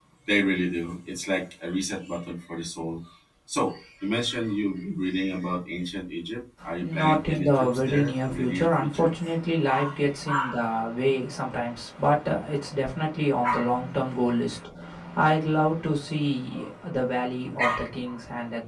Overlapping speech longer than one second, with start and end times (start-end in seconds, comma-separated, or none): 6.8-9.2